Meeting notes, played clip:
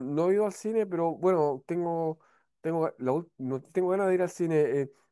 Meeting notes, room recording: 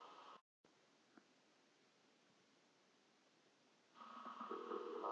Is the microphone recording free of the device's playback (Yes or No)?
Yes